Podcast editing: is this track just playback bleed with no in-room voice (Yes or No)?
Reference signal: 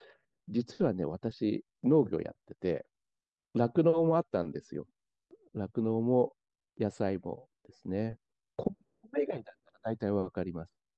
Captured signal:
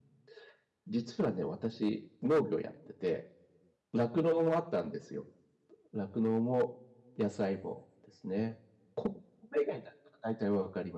Yes